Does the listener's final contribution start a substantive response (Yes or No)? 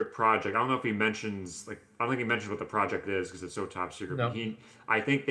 No